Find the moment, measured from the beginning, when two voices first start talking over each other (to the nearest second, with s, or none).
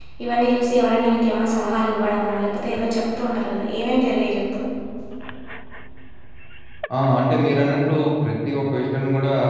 none